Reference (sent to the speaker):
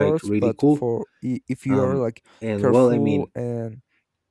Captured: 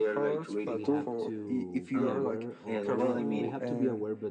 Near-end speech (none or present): present